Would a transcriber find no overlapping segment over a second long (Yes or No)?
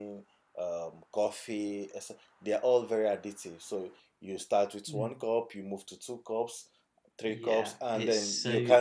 No